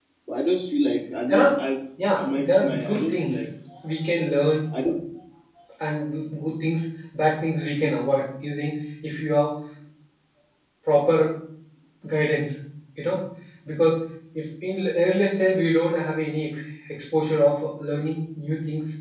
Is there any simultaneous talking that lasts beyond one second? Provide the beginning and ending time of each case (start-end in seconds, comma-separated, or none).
2.1-3.3